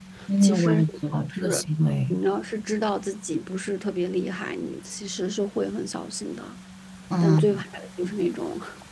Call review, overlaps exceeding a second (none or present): present